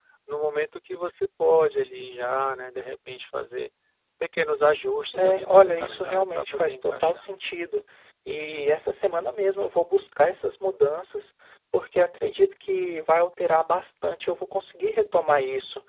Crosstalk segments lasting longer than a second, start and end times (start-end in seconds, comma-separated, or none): 5.1-7.3